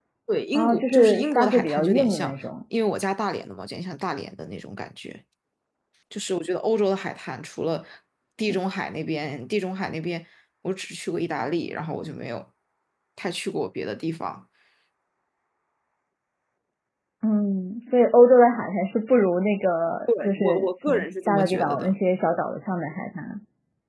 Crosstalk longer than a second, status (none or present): present